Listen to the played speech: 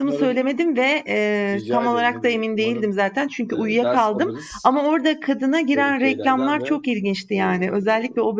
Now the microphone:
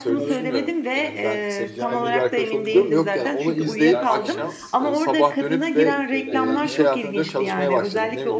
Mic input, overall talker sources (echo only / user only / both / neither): both